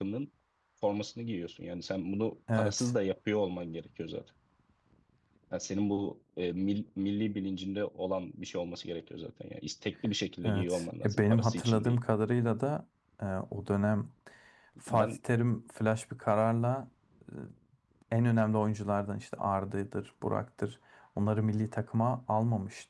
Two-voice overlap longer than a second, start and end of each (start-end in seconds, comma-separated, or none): 10.4-12.0